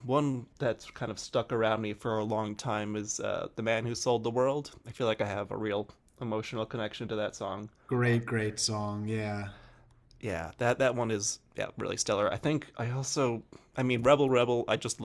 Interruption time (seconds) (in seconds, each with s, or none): none